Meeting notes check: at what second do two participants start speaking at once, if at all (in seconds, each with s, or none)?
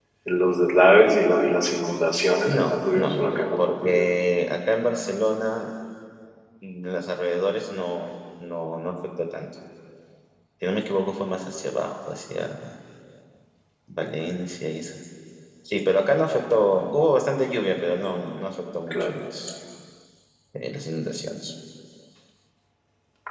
2.5 s